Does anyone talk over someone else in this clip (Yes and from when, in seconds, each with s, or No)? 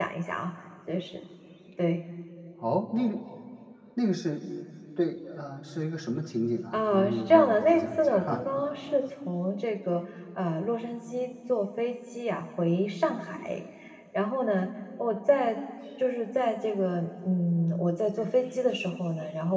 Yes, from 6.7 s